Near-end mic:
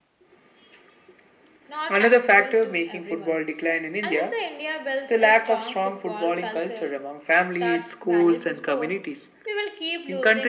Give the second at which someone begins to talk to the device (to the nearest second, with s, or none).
2 s